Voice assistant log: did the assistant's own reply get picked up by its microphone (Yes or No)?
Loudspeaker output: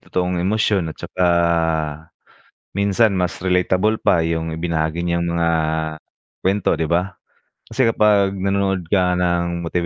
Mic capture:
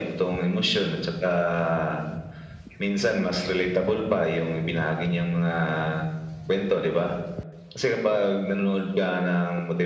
Yes